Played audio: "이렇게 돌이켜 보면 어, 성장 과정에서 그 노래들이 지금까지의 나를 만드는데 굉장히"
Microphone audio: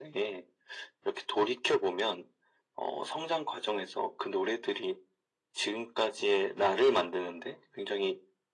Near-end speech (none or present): none